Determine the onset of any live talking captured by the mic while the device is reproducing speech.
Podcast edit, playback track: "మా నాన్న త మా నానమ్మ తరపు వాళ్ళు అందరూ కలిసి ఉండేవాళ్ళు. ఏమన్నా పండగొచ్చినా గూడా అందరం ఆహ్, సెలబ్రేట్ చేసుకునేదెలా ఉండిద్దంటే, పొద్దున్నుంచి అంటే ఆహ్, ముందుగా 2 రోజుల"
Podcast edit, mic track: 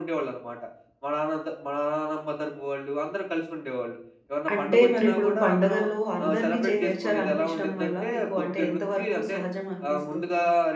4.5 s

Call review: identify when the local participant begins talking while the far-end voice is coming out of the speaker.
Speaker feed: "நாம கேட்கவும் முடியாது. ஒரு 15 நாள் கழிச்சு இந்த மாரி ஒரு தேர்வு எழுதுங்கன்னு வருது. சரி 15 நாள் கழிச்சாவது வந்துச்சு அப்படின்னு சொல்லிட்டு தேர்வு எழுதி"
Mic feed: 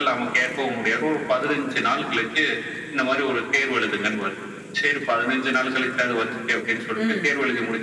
6.9 s

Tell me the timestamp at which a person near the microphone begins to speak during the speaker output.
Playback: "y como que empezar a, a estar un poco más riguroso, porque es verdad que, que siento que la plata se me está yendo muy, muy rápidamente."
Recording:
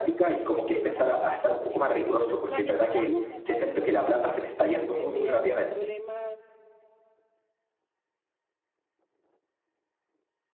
0.5 s

